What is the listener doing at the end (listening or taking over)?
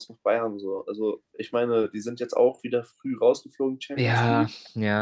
taking over